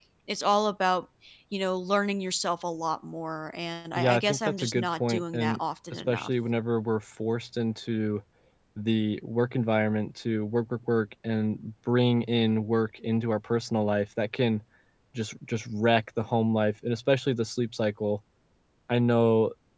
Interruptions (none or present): present